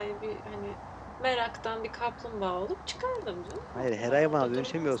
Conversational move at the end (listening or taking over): taking over